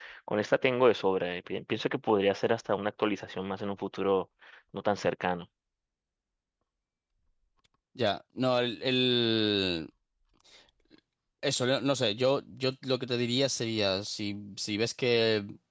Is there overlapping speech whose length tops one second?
No

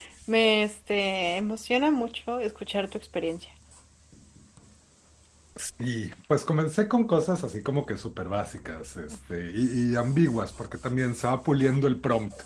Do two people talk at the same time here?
No

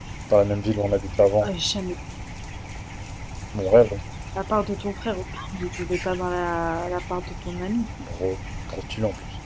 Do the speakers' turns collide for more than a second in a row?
No

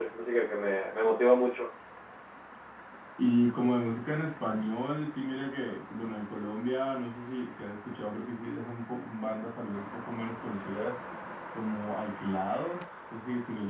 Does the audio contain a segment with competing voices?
No

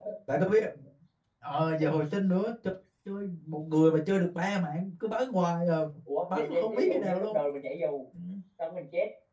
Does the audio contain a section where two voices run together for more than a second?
Yes, from 6.2 s

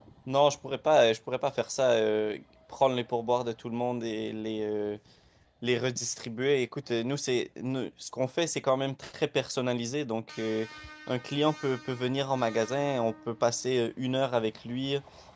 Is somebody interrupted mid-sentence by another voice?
No

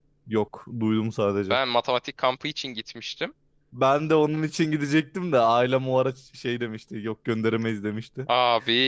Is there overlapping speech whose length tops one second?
No

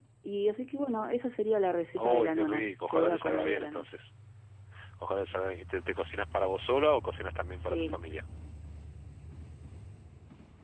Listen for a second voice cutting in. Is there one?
Yes, from 2.0 s

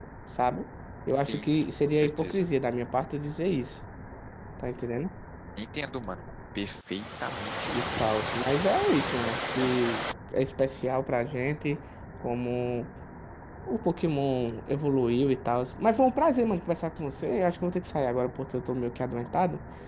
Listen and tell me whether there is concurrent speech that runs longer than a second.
Yes, from 1.2 s

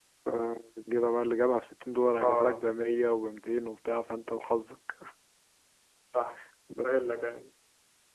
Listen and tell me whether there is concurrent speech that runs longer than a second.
No

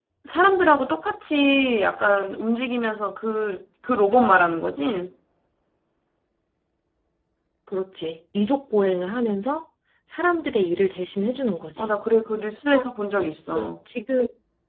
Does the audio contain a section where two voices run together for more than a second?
No

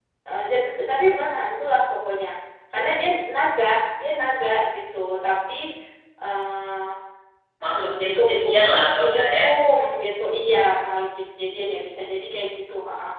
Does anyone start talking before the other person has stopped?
Yes, from 8.2 s

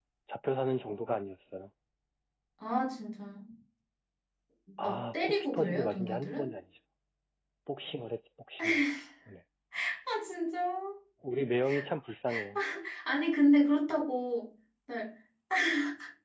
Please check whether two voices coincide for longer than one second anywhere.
Yes, from 4.8 s

